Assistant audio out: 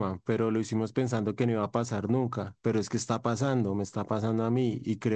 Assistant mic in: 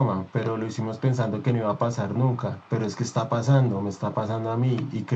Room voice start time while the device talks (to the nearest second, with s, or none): none